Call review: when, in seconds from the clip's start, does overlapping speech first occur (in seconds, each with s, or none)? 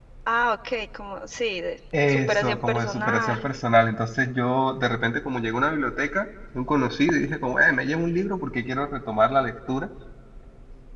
1.9 s